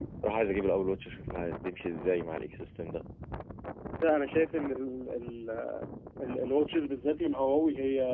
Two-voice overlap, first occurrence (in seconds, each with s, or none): none